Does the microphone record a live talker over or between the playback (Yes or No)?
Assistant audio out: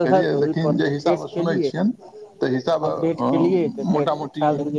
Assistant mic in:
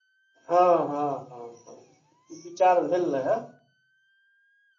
Yes